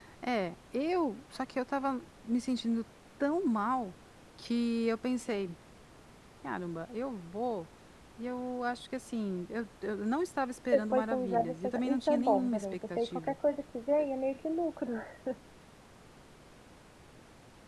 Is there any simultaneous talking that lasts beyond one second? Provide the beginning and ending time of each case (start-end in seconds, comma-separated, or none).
10.7-13.3